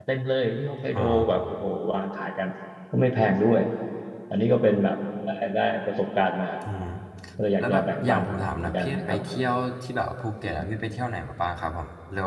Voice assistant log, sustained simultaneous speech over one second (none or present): present